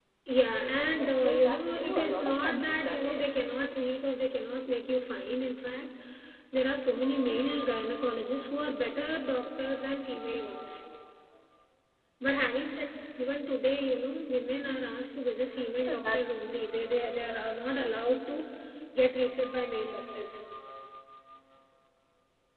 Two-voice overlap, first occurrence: 0.8 s

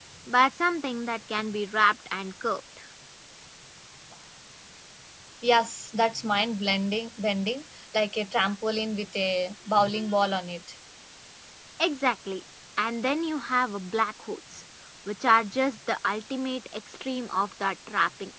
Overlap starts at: none

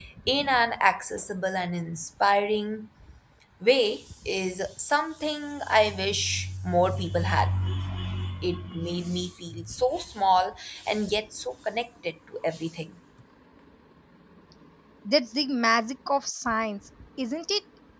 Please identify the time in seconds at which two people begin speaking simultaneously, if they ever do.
none

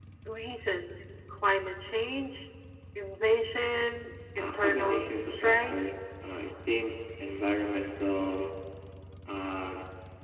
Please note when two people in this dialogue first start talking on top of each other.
4.4 s

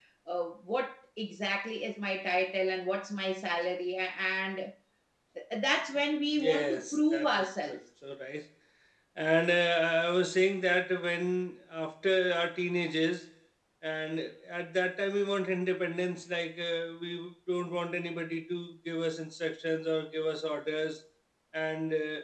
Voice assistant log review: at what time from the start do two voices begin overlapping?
6.3 s

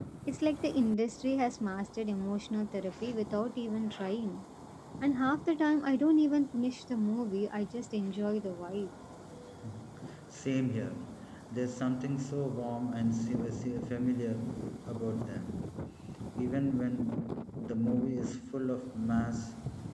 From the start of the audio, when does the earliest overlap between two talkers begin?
none

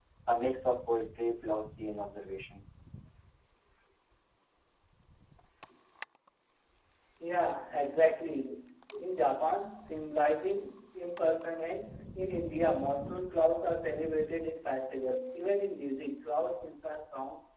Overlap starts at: none

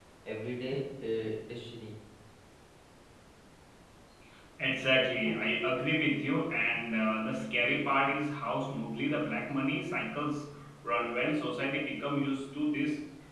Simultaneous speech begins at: none

